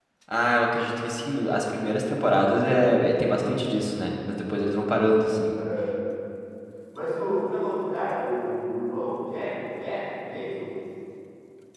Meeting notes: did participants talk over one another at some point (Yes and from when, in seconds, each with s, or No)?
No